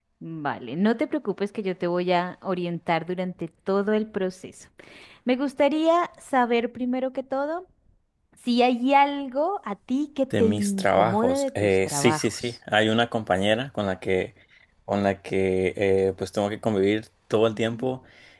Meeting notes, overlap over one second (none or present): present